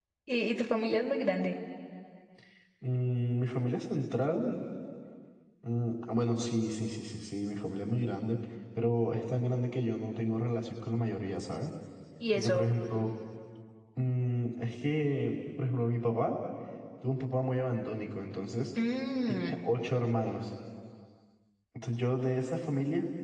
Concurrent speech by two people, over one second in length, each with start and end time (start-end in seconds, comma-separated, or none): none